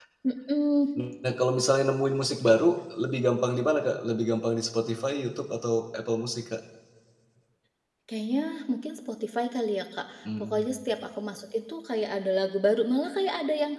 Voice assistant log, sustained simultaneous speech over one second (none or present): none